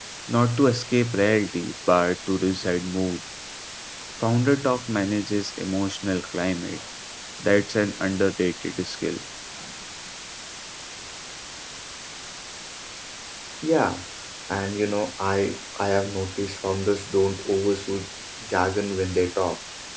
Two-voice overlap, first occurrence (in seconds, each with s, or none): none